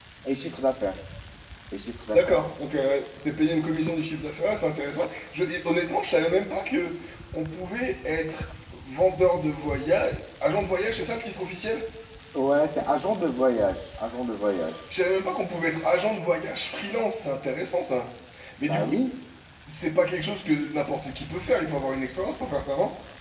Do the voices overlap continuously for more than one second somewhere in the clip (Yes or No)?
No